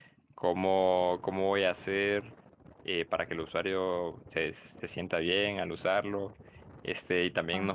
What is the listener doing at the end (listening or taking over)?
listening